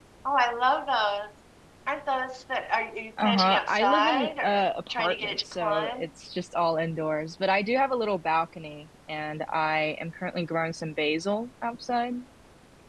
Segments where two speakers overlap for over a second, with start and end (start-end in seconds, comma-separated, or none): 3.2-6.1